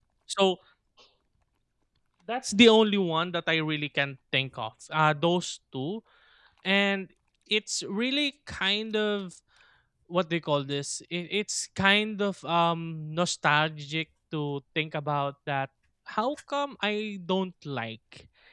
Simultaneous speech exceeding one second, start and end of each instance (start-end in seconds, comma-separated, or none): none